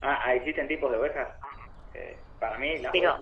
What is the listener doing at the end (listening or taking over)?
taking over